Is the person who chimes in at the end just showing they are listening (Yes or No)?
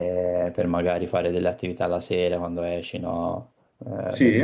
Yes